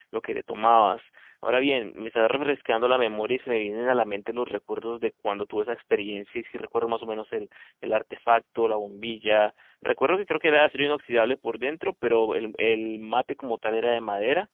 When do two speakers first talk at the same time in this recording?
none

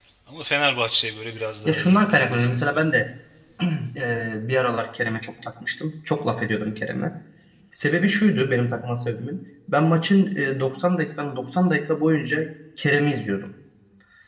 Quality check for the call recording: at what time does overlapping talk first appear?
1.6 s

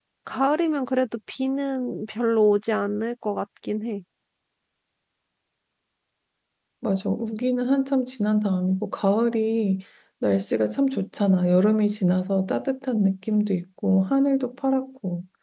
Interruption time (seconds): none

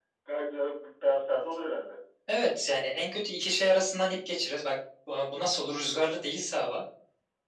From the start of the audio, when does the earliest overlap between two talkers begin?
none

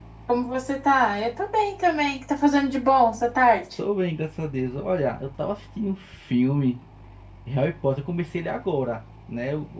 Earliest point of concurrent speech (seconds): none

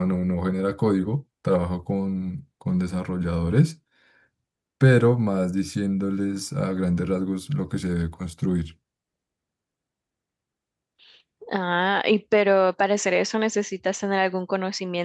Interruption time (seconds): none

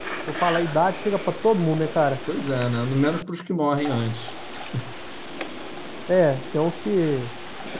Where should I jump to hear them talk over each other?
none

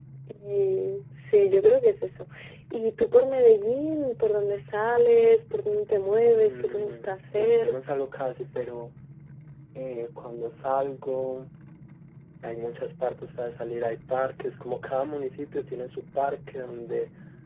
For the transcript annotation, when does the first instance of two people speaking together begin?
6.3 s

